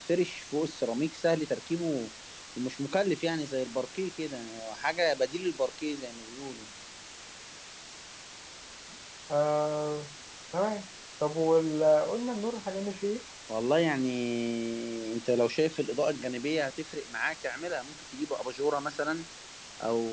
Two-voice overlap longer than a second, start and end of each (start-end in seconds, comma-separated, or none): none